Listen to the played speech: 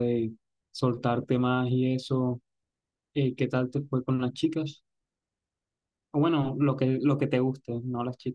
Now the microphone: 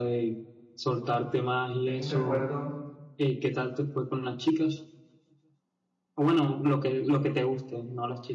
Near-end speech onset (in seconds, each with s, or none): 1.8 s